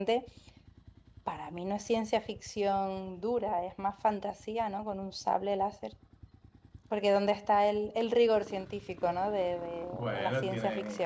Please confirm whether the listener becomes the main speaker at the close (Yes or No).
Yes